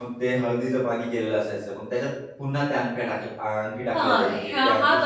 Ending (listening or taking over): taking over